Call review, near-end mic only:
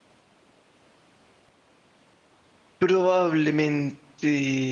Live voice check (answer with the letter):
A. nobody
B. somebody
B